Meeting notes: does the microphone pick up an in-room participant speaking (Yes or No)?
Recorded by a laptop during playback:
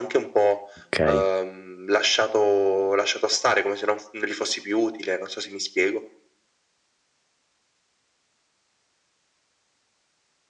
Yes